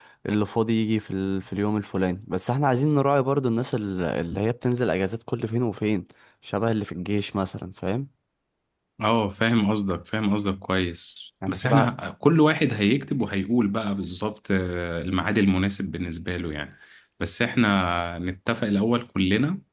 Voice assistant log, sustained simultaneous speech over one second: none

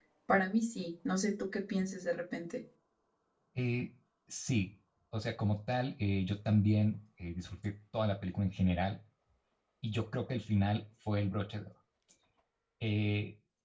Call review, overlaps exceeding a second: none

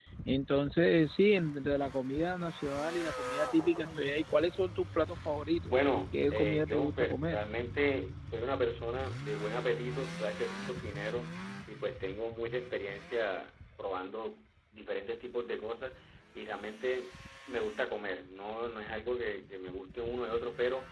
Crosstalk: present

